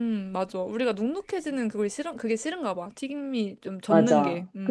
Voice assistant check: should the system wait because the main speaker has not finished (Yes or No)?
No